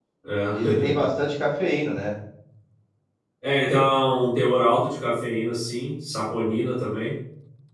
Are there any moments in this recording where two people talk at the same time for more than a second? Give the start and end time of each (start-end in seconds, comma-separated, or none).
none